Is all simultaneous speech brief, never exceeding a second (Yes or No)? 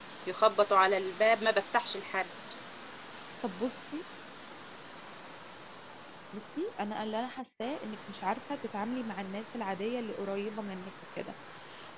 Yes